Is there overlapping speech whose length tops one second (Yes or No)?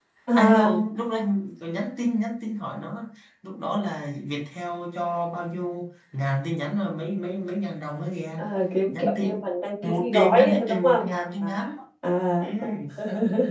Yes